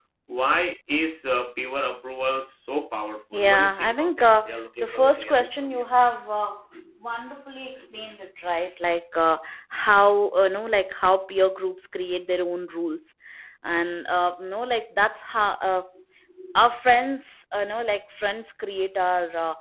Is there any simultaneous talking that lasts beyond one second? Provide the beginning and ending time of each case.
3.3-5.9

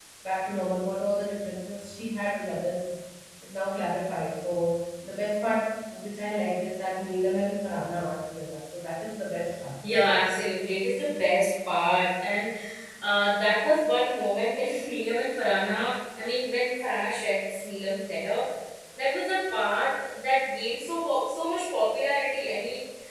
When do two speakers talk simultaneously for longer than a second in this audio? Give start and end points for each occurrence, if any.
none

